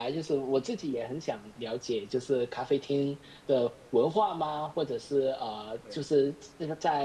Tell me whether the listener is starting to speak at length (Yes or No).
No